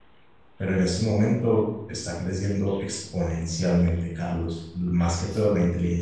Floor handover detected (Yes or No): No